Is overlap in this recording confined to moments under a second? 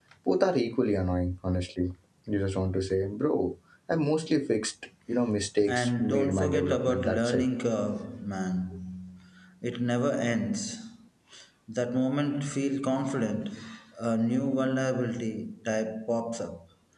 No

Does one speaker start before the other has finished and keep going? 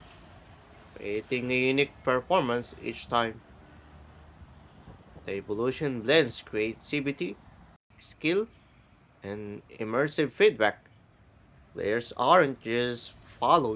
No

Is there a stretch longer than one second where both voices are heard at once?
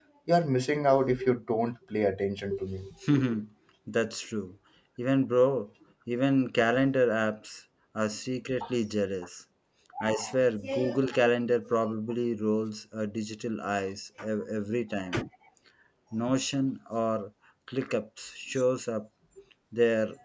No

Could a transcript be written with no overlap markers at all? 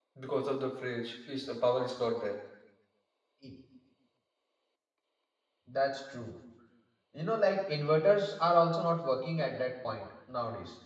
Yes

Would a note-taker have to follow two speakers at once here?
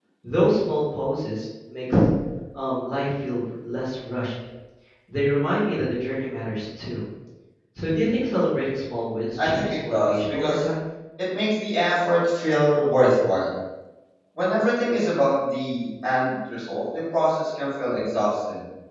Yes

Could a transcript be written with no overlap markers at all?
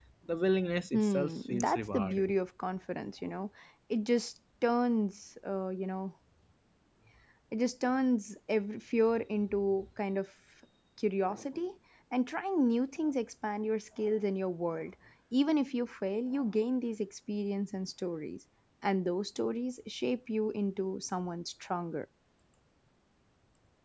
No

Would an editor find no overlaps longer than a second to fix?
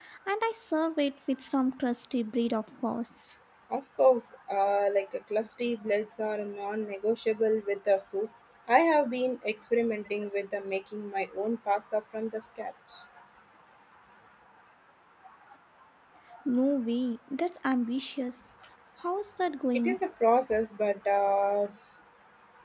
Yes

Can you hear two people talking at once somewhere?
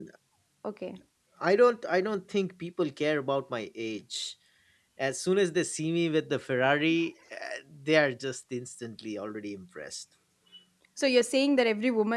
No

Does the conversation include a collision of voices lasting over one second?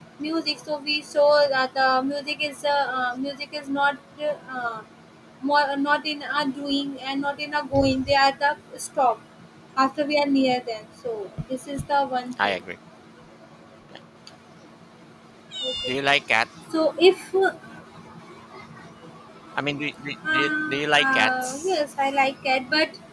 Yes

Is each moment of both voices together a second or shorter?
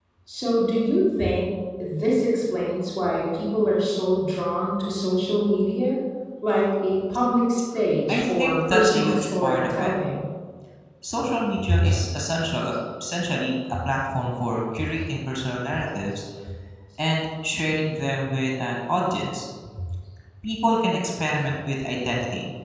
No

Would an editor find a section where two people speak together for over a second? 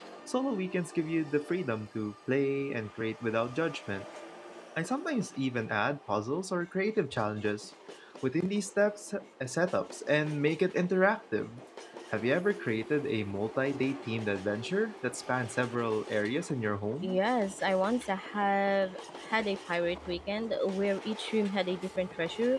No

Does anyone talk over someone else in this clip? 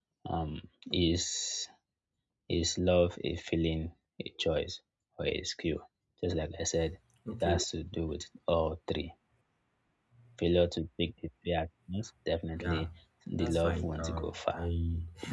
Yes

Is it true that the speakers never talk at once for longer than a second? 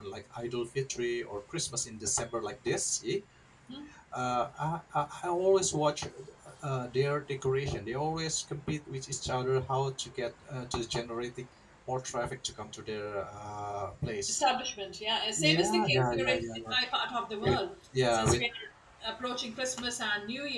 No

